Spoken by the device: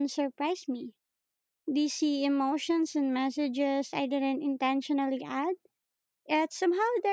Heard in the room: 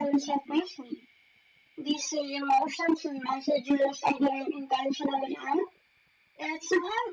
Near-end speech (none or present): none